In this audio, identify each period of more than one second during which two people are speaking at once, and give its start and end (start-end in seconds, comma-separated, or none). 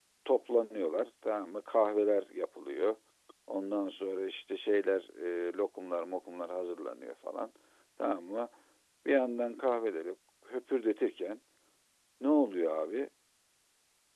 none